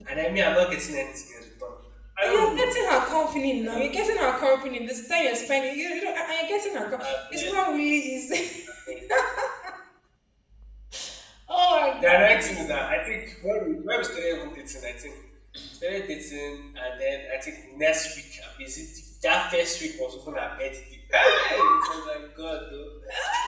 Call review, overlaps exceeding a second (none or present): none